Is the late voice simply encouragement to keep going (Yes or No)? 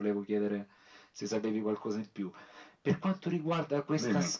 Yes